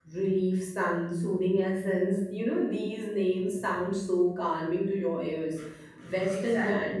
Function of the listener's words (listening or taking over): listening